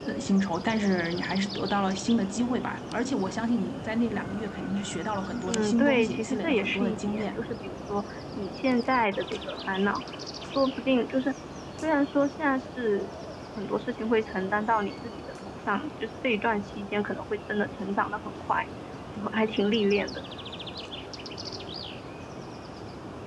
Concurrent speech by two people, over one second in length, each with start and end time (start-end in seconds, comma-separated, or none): 5.5-7.4